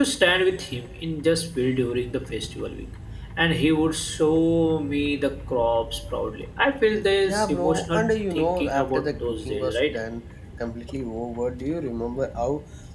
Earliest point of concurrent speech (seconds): 7.2 s

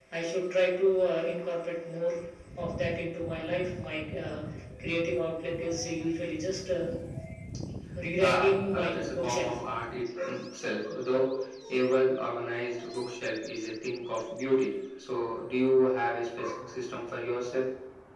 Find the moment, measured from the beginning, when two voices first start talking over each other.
8.2 s

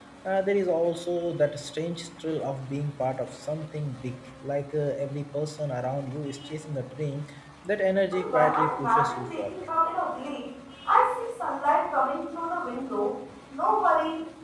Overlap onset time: 8.1 s

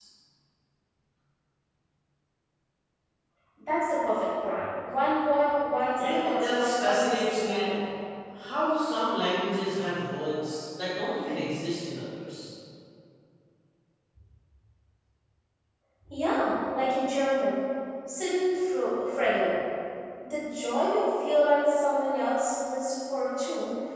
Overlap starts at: 6.0 s

